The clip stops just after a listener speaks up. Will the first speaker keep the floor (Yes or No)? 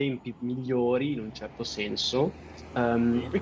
Yes